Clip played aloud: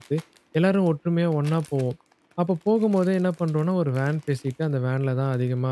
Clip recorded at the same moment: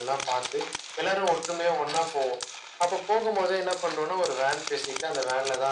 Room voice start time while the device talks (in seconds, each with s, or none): none